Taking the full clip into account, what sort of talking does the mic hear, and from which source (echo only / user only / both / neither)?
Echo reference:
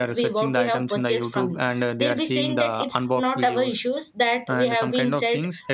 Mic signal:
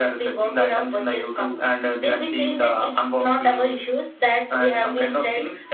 echo only